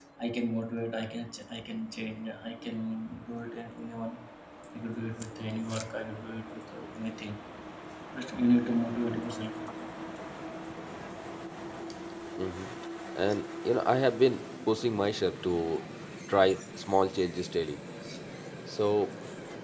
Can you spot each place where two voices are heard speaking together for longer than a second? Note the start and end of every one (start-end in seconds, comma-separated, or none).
none